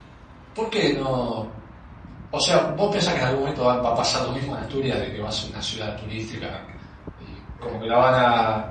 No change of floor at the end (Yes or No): Yes